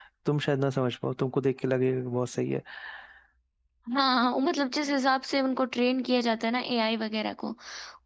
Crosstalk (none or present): none